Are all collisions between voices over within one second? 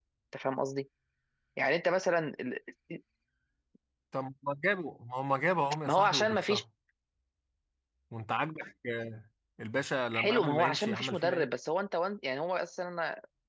No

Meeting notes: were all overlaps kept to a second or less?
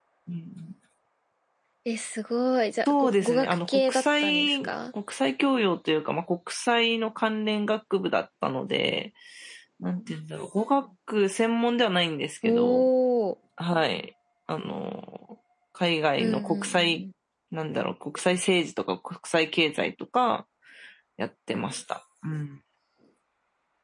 No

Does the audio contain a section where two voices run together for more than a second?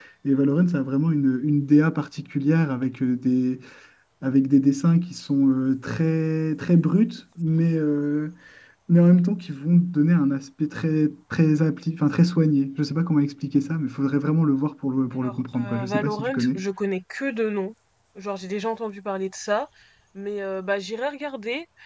Yes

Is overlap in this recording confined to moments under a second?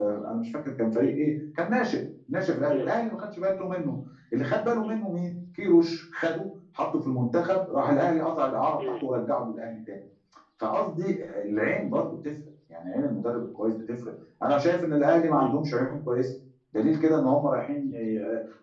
Yes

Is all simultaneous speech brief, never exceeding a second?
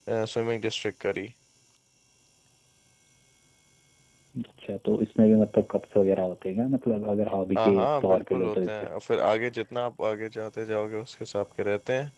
No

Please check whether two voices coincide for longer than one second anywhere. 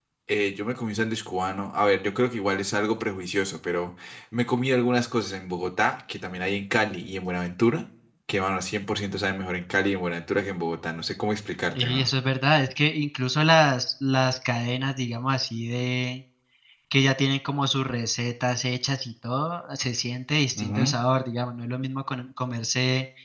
No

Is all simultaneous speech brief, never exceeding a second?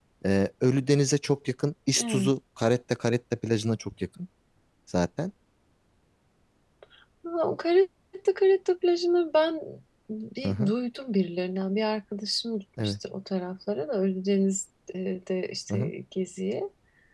Yes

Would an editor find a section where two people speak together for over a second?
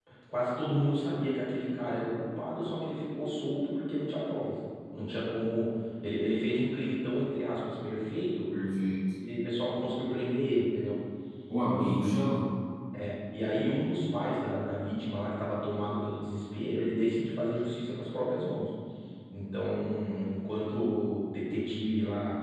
No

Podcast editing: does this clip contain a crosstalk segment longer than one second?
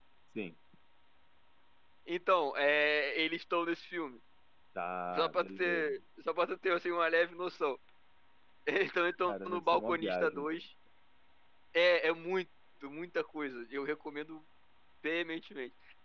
Yes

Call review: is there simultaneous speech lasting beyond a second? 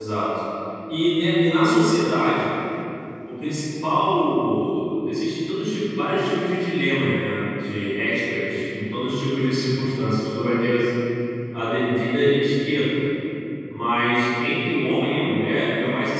No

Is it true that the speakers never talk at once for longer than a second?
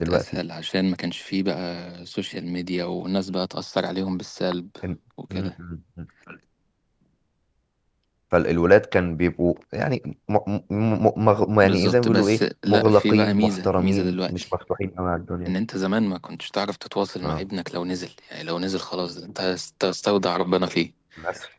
No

